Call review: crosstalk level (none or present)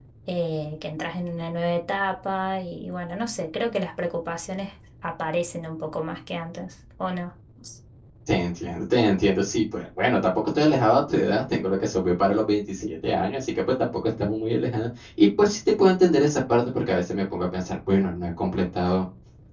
none